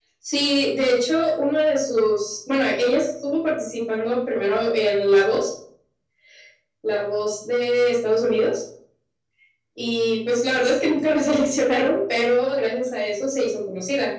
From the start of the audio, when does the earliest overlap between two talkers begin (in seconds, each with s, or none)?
none